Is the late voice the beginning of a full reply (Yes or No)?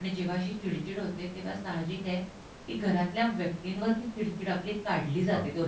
Yes